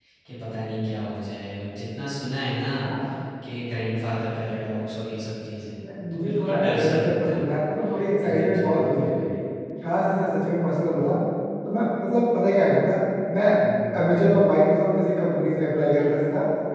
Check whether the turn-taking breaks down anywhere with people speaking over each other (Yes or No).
Yes